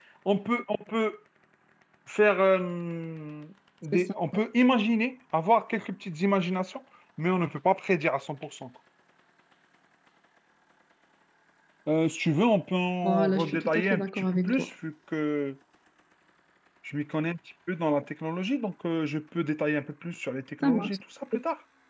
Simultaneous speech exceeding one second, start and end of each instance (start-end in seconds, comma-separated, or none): 13.0-14.7